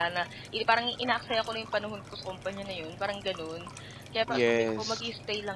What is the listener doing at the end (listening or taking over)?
listening